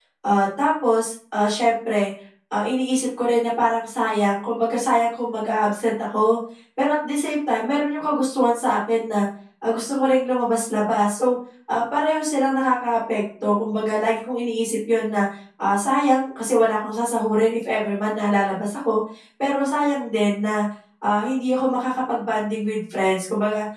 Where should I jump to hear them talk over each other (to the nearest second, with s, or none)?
none